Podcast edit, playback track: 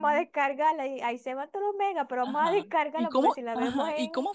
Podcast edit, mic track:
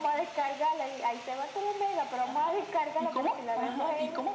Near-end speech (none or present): none